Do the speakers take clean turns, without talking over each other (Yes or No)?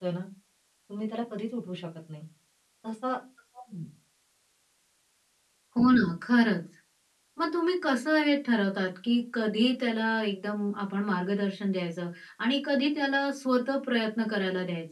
Yes